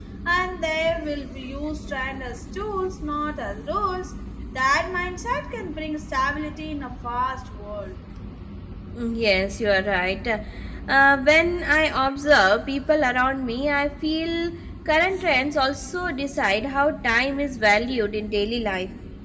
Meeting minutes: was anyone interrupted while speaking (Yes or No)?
No